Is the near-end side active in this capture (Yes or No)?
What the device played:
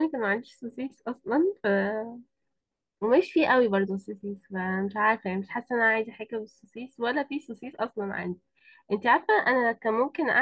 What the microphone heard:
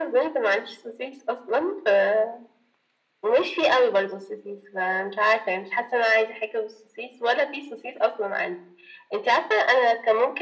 No